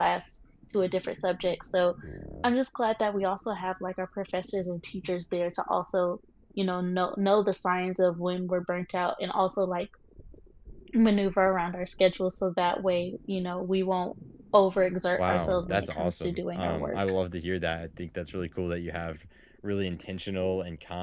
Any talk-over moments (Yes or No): Yes